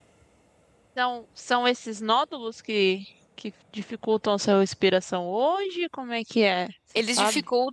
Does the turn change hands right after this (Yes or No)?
Yes